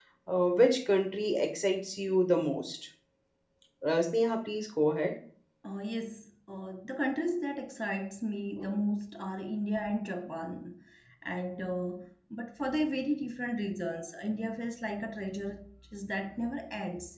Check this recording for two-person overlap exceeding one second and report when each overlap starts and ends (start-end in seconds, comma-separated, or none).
none